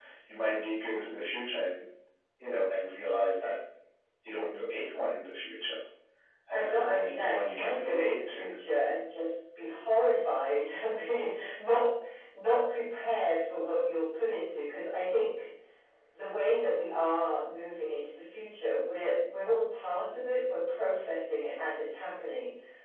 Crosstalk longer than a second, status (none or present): present